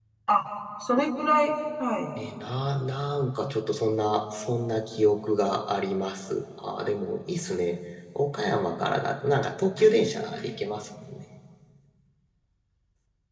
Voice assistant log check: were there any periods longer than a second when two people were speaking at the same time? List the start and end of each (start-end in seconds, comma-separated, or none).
none